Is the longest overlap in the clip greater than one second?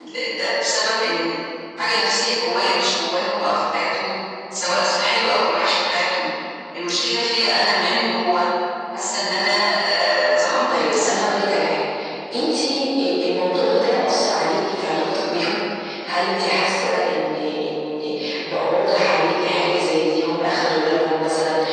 No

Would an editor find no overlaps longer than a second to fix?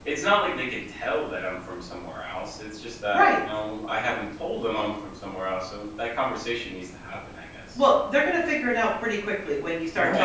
Yes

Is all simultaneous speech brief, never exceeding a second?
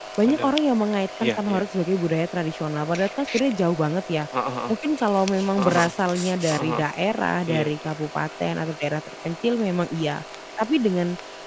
Yes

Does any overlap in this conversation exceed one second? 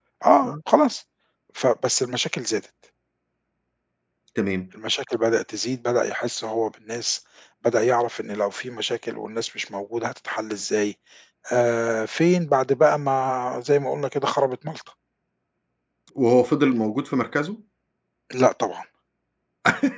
No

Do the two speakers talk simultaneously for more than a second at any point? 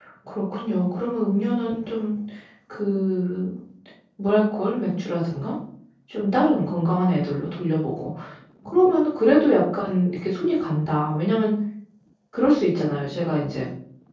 No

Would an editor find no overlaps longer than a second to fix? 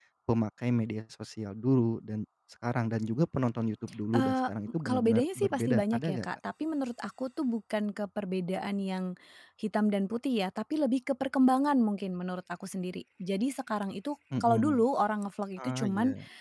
No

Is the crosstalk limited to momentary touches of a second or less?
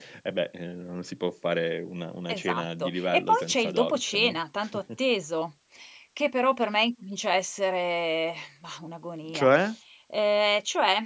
No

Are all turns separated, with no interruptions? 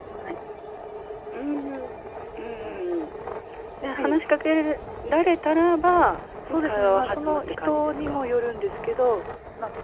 No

